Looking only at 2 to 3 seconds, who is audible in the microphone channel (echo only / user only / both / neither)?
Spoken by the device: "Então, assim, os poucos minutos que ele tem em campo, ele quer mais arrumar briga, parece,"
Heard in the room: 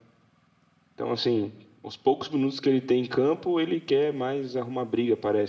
echo only